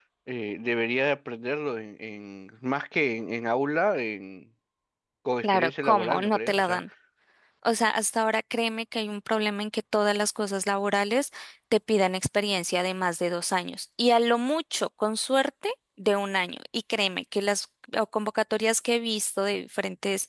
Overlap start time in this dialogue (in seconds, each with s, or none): 5.4 s